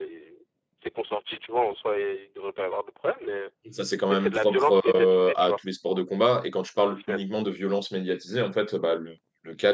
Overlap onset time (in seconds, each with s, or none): 4.0 s